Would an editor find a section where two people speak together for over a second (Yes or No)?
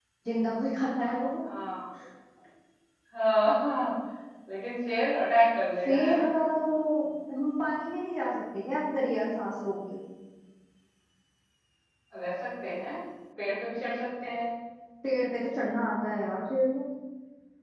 No